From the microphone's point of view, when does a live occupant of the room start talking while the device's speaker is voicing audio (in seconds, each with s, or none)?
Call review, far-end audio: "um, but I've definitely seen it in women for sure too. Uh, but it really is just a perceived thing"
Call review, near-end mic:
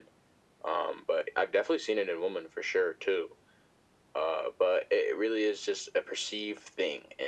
none